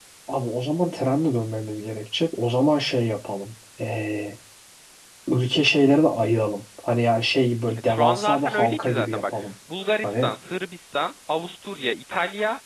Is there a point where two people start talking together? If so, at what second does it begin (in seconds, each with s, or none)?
7.8 s